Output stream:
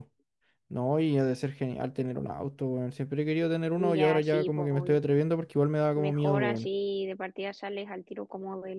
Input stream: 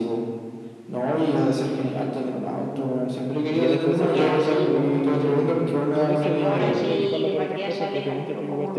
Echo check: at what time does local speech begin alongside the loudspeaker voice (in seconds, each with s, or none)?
3.5 s